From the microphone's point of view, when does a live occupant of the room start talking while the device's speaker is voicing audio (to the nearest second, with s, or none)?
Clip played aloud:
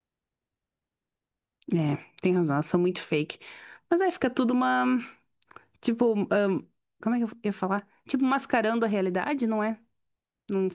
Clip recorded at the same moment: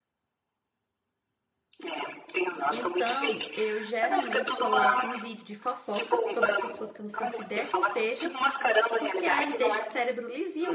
3 s